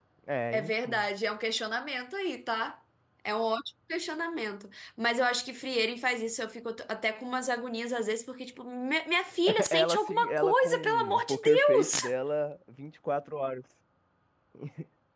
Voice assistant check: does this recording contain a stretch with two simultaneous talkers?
Yes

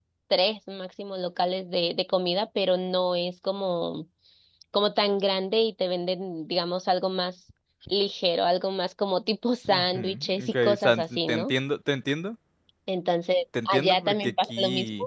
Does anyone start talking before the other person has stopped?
Yes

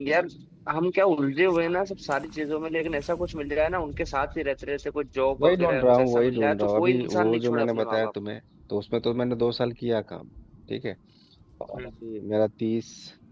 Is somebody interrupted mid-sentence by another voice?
Yes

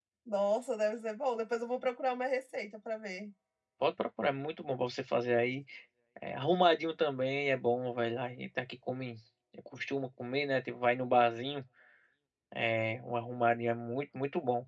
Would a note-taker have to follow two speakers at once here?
No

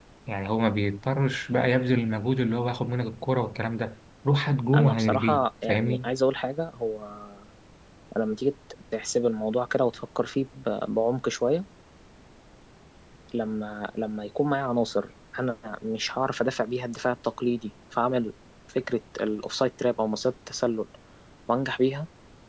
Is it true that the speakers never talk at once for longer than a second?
No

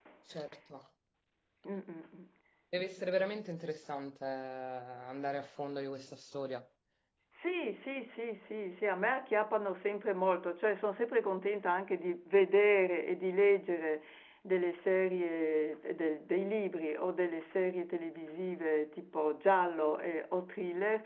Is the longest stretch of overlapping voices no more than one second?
Yes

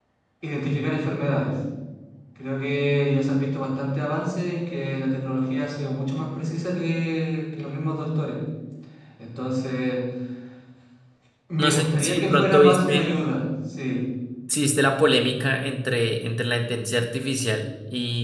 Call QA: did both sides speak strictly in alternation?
No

